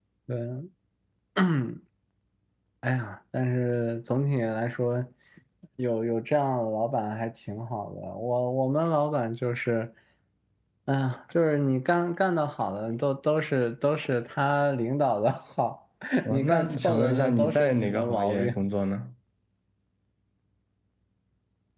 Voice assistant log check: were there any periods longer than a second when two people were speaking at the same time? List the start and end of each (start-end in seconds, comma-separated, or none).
16.3-18.5